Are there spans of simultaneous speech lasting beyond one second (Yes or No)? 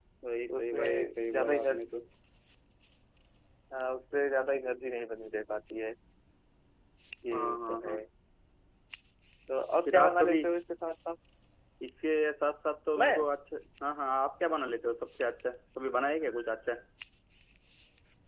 Yes